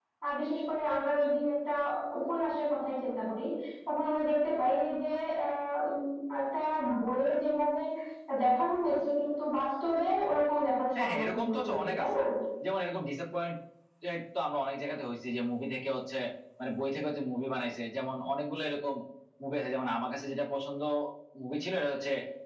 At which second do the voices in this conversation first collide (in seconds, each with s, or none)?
11.0 s